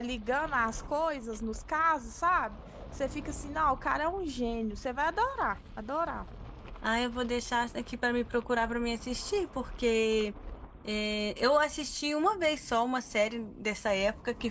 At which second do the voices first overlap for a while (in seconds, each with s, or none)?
none